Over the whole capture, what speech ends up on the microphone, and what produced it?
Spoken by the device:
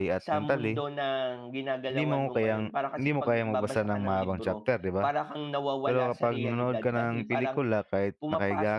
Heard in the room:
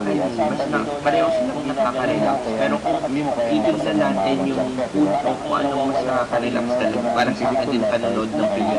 both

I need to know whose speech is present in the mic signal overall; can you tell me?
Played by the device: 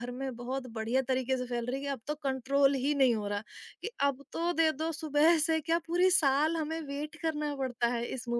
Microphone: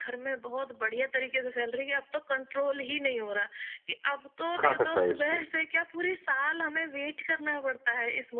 both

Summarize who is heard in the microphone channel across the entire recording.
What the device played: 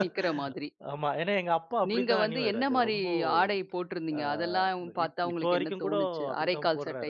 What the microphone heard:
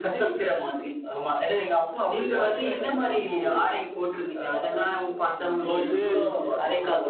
both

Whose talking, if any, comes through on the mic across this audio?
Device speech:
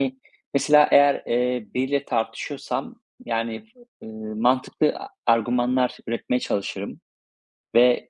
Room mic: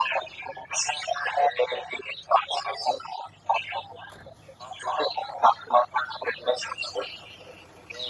echo only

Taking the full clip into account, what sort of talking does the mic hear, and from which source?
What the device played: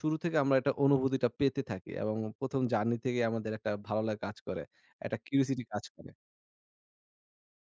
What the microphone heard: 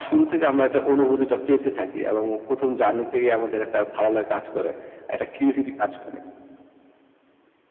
echo only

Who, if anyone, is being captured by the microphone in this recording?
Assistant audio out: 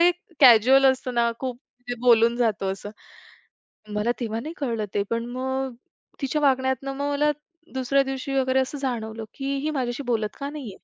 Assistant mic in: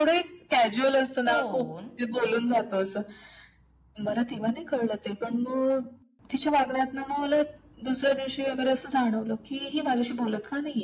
both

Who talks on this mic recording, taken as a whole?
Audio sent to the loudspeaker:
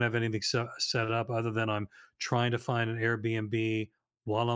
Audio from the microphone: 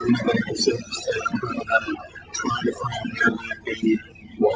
echo only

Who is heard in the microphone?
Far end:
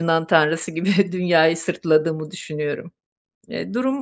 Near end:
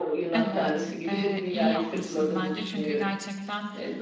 both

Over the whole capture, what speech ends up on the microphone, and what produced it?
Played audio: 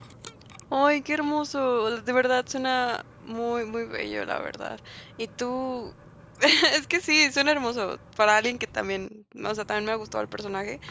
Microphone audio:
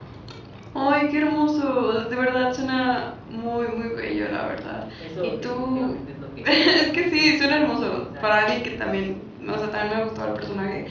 both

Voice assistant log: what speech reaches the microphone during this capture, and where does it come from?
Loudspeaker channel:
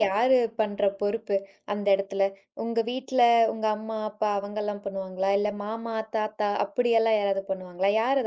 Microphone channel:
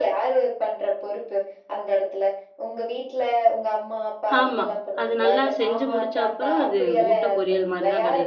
both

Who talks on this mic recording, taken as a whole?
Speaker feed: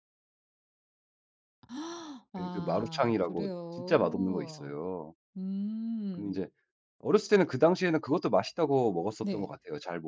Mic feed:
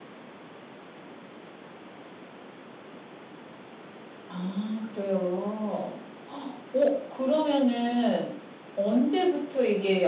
user only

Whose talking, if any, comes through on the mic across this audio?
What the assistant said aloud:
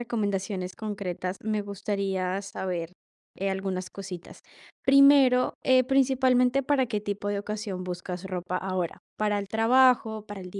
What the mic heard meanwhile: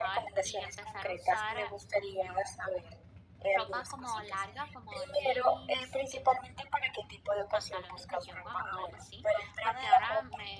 both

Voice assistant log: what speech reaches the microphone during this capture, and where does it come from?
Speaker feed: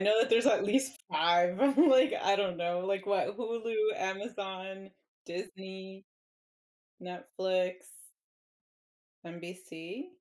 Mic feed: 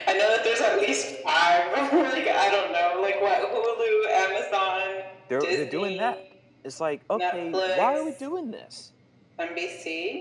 both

